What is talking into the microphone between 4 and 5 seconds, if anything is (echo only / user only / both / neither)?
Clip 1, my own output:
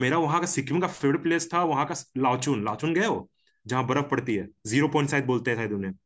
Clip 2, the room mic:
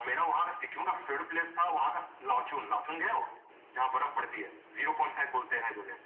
echo only